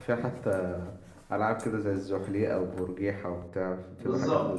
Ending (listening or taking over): taking over